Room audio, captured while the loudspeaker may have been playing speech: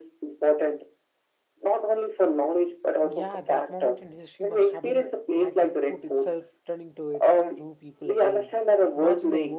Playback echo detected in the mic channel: Yes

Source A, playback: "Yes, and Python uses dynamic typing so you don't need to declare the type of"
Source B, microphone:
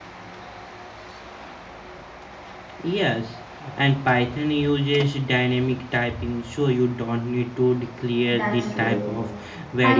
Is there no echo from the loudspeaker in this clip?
No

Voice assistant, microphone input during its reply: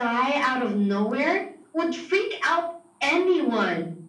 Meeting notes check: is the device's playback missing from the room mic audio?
No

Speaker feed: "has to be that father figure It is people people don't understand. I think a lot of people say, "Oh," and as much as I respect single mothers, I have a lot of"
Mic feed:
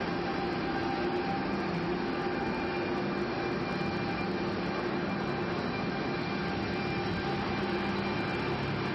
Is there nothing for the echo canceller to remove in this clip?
Yes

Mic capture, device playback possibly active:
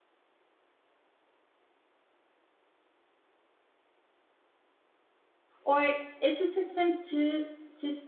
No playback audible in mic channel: Yes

